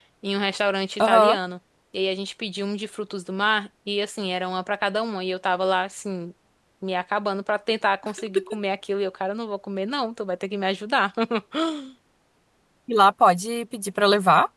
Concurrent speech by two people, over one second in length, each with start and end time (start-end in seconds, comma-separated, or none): none